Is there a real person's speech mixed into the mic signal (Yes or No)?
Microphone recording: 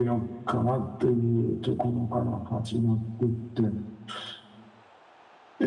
No